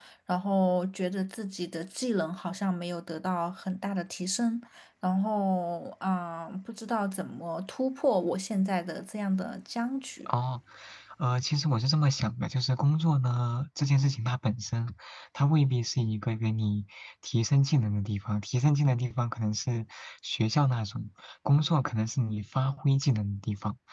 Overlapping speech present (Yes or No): No